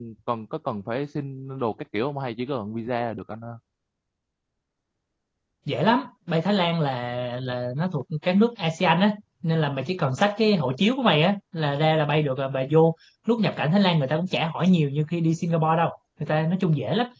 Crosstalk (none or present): none